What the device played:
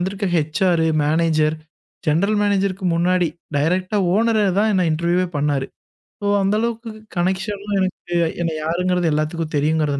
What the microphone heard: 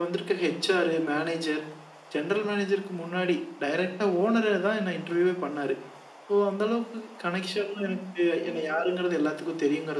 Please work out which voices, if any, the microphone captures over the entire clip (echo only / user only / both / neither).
echo only